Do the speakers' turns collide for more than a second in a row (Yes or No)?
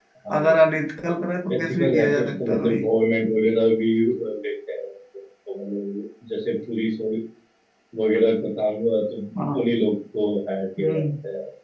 Yes